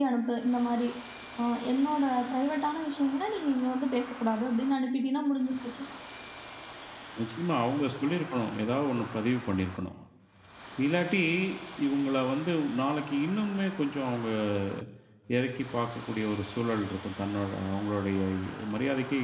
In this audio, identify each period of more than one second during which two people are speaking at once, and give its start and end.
none

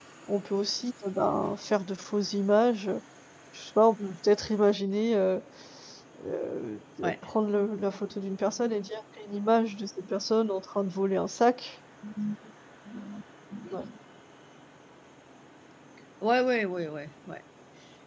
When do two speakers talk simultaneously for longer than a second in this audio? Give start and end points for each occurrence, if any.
none

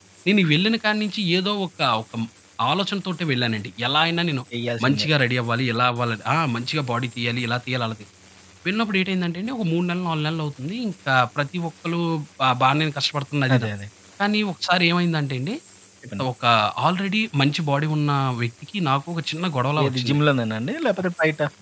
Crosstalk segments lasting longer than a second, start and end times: none

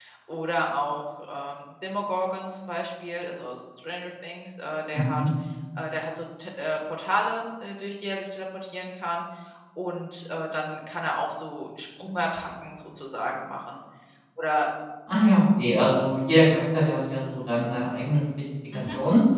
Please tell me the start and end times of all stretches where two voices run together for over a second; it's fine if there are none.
none

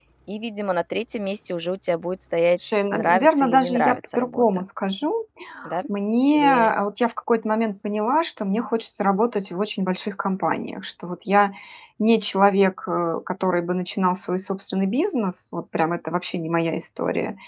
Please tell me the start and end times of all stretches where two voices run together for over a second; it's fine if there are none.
2.6-4.4

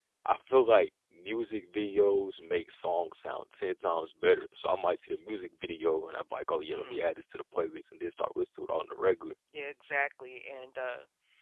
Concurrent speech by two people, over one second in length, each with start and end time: none

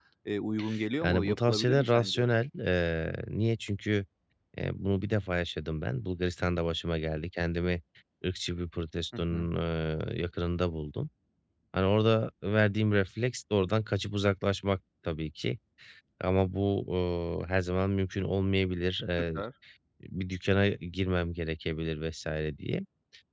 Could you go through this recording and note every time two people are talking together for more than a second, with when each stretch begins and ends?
1.0-2.3

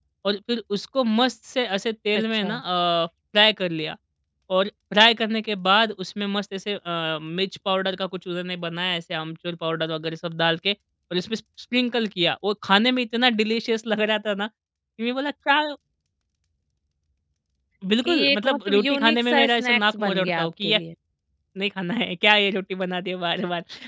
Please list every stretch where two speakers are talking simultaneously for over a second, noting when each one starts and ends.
18.0-20.8

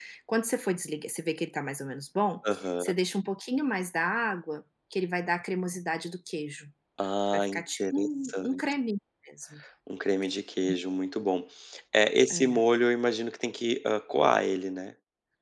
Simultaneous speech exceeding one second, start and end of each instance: 7.3-8.6

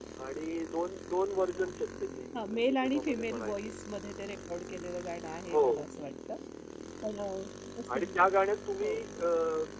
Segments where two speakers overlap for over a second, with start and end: 2.5-3.8

